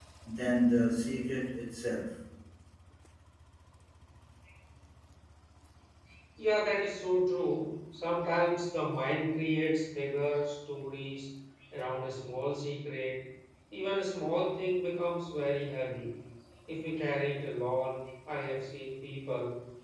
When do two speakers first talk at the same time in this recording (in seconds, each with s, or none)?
none